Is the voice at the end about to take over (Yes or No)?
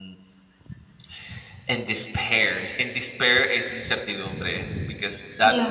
No